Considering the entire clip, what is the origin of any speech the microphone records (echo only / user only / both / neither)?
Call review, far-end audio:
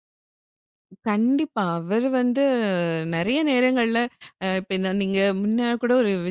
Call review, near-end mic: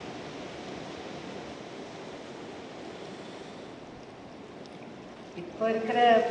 user only